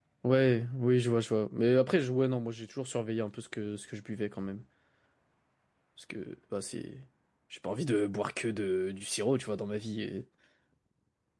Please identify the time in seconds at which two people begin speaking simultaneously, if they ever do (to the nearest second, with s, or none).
none